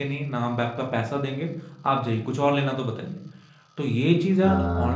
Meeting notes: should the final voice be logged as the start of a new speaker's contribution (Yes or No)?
No